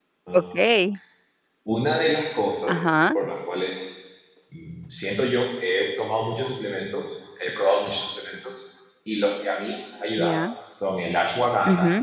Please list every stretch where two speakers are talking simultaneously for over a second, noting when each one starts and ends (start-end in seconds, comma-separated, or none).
none